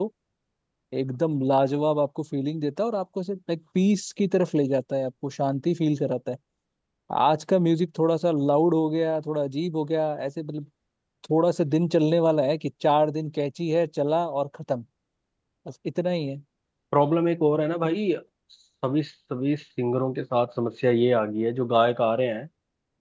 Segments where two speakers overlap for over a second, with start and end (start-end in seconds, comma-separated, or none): none